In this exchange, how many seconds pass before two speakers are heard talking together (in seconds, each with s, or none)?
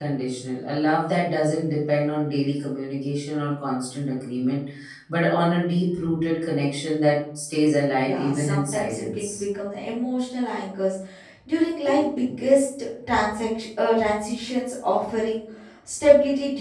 8.0 s